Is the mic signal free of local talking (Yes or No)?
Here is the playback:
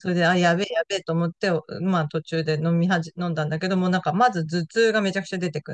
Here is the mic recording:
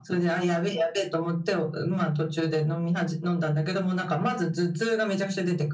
Yes